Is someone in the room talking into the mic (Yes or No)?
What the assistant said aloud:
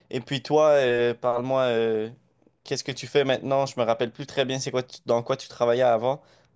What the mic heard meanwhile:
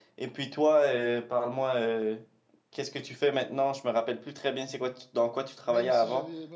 Yes